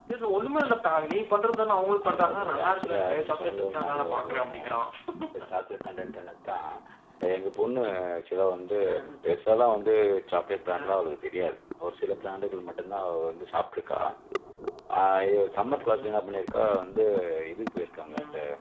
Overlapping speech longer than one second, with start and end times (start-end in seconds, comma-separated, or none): 2.1-4.6